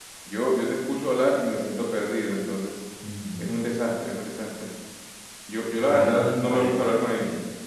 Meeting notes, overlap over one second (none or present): present